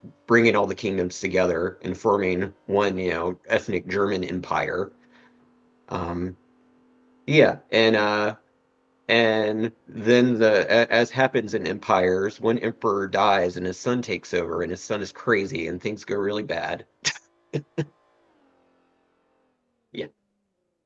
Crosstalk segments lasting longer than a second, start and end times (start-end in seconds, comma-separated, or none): none